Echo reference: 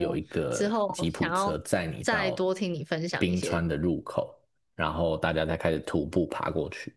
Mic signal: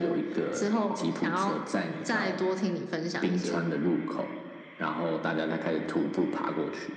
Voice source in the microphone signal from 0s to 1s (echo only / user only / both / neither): echo only